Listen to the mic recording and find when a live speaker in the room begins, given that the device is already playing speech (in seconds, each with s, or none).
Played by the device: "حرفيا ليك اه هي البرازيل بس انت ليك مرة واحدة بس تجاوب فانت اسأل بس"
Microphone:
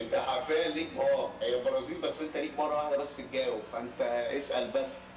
none